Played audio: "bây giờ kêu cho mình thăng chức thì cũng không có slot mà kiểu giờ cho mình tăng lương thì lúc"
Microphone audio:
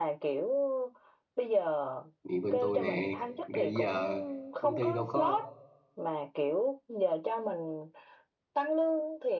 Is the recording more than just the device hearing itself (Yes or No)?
Yes